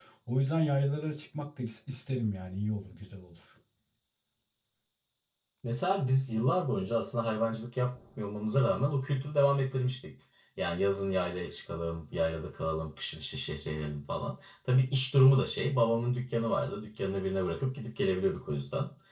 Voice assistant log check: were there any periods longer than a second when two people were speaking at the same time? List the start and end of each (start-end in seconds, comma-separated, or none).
none